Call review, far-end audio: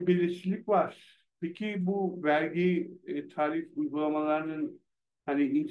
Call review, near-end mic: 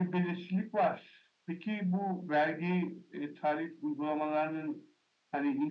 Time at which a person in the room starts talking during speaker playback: none

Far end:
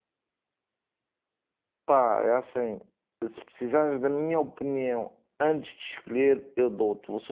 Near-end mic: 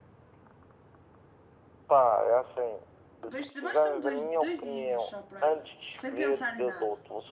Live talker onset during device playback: 3 s

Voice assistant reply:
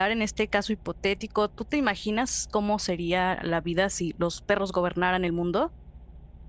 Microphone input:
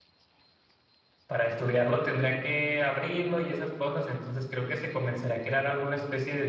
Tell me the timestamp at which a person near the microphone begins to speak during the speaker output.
1 s

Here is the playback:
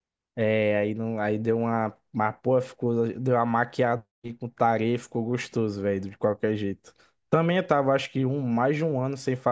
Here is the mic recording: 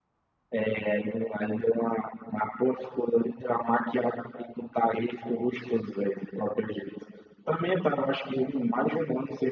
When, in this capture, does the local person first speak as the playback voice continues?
none

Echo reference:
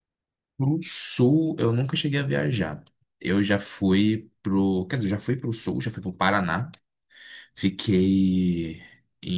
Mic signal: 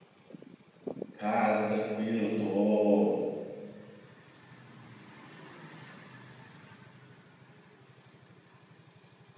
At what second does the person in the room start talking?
1 s

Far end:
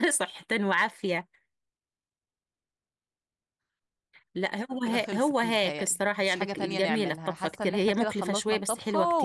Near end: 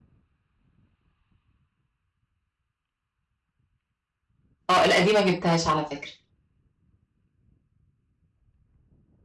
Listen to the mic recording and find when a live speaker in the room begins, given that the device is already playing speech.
5 s

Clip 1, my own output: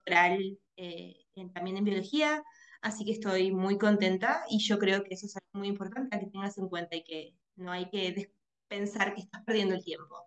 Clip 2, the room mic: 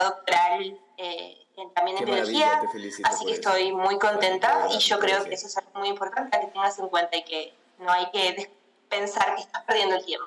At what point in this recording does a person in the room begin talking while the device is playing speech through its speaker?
2 s

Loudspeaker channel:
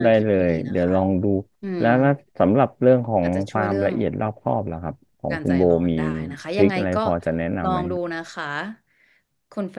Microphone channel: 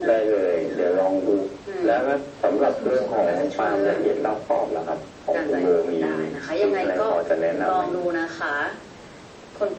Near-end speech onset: 2 s

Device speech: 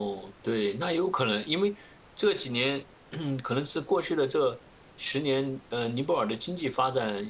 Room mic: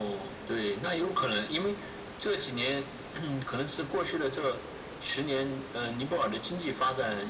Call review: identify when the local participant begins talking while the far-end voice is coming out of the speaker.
none

